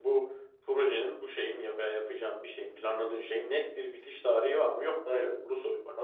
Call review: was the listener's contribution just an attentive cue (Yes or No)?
No